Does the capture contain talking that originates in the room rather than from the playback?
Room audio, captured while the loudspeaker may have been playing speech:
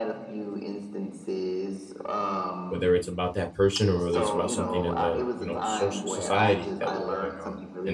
Yes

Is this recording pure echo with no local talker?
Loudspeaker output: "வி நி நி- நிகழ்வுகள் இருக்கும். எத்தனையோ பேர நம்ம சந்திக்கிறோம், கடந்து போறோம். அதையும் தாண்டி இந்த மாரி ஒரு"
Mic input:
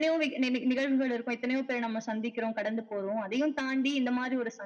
Yes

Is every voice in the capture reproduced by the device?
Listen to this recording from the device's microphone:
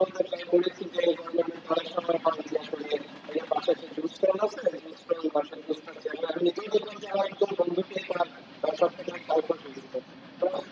Yes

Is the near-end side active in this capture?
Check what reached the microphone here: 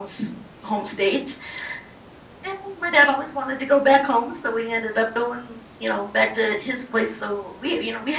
No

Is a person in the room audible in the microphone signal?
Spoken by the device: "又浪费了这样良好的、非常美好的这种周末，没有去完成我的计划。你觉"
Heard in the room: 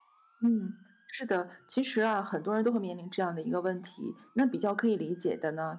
Yes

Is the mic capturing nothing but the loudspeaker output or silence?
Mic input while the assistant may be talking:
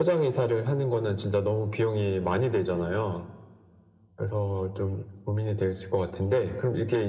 Yes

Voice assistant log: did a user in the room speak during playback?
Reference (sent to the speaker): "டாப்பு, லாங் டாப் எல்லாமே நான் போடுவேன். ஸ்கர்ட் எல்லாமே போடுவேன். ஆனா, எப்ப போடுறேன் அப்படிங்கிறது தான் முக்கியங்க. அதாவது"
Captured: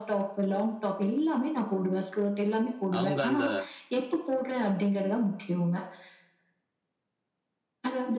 Yes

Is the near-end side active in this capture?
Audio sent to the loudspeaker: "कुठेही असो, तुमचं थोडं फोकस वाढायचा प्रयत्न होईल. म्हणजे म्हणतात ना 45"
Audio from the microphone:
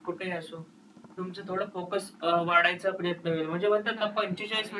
Yes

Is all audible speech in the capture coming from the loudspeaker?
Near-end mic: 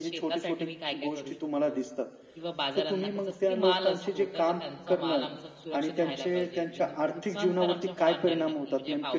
Yes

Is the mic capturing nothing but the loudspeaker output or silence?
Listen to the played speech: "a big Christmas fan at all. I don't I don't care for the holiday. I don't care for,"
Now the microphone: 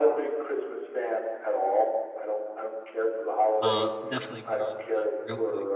No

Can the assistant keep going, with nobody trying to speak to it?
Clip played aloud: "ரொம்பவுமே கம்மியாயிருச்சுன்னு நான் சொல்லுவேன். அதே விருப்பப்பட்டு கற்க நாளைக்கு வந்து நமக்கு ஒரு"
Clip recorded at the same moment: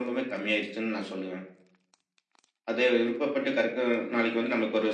Yes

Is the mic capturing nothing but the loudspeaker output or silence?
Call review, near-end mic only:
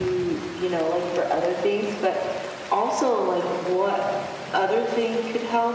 Yes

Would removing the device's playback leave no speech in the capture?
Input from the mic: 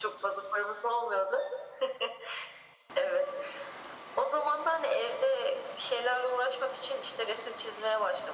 Yes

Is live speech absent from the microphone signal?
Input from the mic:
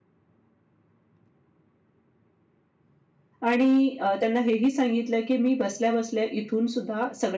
No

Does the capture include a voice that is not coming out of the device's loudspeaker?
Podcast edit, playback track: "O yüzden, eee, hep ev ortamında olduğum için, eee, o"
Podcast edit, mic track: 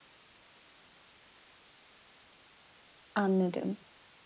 Yes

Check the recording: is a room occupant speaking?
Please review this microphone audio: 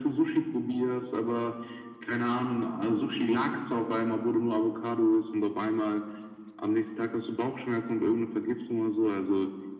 No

